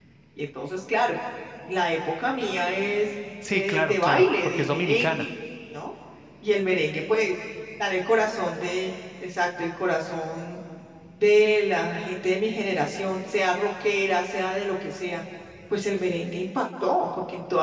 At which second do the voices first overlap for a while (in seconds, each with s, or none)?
3.4 s